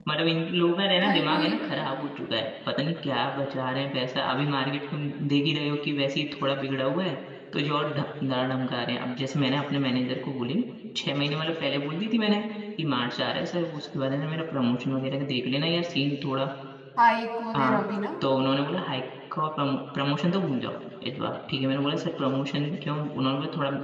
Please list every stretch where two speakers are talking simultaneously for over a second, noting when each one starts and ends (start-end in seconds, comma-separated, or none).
none